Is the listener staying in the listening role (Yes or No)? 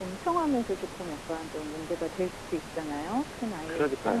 No